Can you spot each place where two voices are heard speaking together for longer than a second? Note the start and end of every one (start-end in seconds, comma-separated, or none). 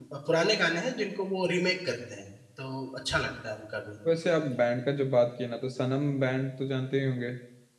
none